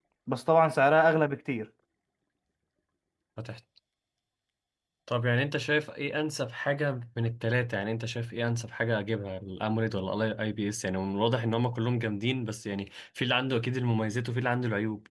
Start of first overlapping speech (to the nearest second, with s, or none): none